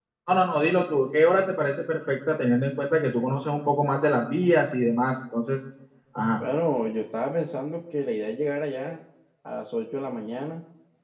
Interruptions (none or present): none